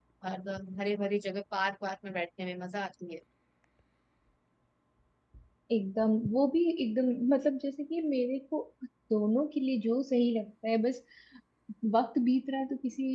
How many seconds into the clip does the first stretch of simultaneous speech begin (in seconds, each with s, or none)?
none